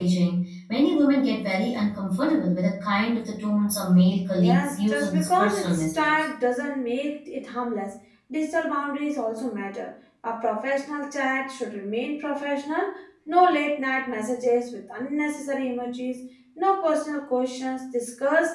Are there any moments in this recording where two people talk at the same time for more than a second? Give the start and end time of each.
4.4-6.1

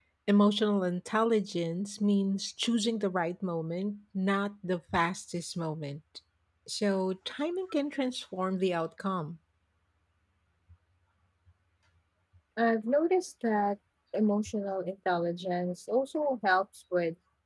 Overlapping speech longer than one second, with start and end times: none

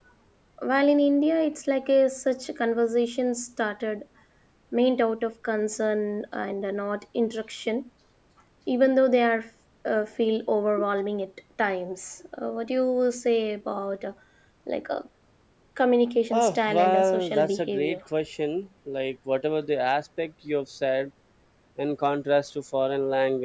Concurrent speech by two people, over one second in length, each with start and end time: 16.3-18.0

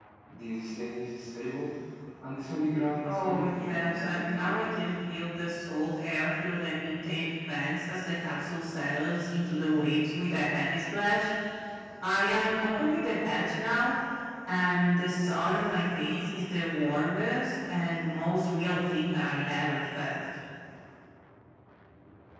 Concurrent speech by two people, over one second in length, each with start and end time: 3.0-4.6

